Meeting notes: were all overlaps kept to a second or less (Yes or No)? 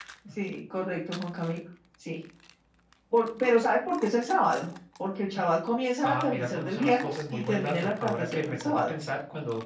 No